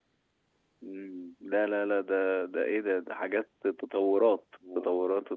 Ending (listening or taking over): taking over